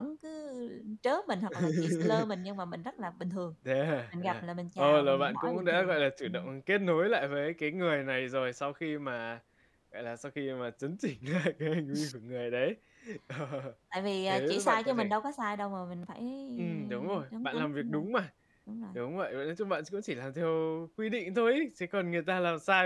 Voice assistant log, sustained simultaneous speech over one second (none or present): present